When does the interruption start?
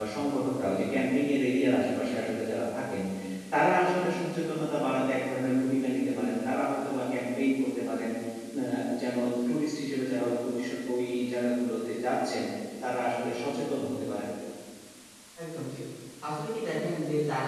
none

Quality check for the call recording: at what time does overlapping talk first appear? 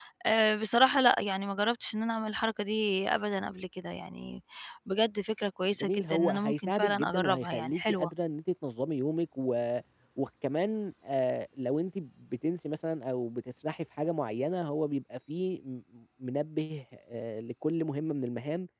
5.8 s

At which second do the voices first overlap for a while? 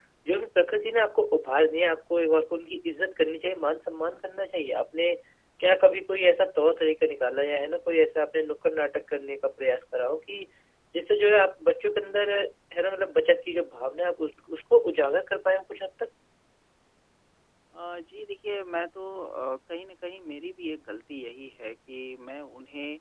none

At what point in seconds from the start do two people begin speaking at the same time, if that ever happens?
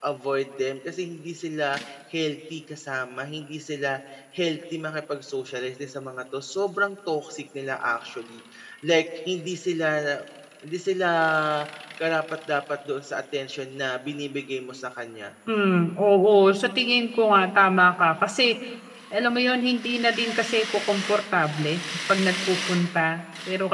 none

